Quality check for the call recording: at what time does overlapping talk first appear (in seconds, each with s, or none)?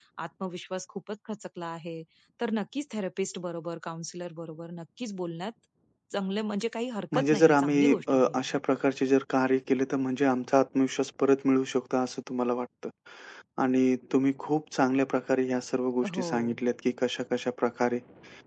7.1 s